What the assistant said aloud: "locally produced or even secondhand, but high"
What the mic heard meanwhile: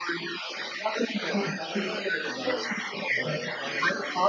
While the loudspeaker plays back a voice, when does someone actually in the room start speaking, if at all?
1.2 s

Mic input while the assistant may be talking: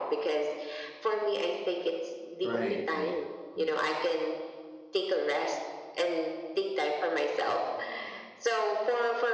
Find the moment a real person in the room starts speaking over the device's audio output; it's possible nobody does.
2.4 s

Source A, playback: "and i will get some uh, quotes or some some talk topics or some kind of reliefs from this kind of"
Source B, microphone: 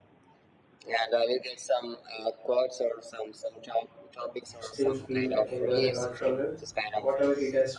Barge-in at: 4.6 s

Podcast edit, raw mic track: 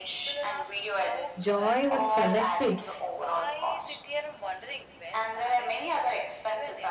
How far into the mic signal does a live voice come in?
1.4 s

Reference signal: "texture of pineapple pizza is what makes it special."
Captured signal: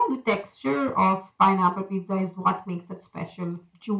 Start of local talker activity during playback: none

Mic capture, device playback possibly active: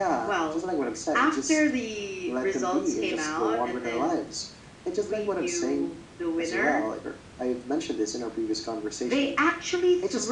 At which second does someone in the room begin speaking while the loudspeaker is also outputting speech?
none

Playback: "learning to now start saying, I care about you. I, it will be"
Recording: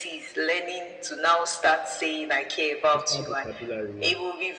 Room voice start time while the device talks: 2.9 s

